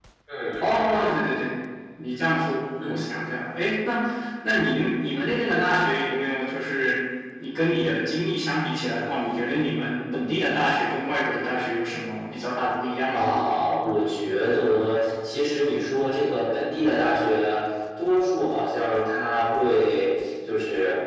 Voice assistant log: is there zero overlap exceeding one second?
Yes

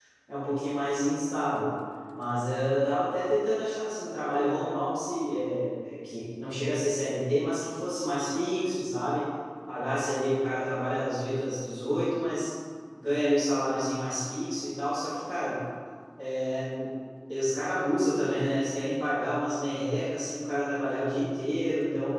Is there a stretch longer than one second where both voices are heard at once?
No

